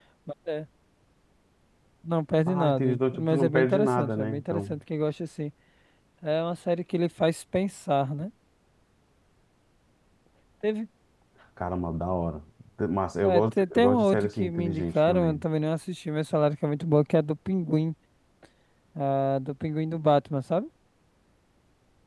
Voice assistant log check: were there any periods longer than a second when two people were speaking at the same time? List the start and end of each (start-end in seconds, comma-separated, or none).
2.5-4.8, 13.2-15.4